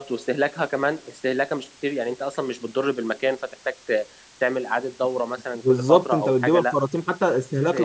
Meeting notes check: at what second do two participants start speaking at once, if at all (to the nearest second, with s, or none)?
6 s